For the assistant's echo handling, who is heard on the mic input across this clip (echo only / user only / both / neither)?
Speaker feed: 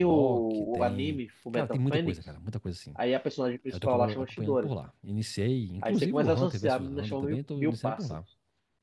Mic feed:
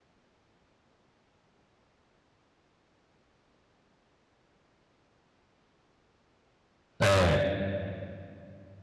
user only